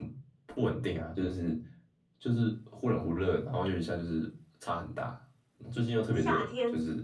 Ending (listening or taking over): taking over